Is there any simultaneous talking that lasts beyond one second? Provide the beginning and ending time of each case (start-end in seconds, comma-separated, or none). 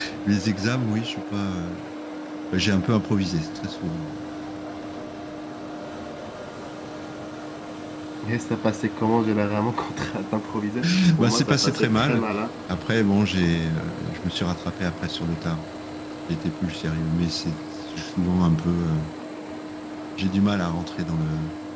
10.8-12.2